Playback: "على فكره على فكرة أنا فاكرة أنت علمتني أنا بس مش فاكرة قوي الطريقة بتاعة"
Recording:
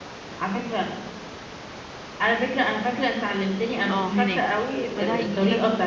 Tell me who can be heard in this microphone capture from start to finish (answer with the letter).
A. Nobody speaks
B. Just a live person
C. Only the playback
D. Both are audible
D